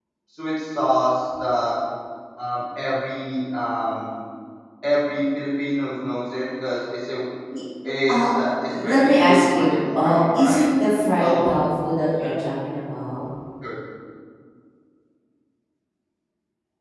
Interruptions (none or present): present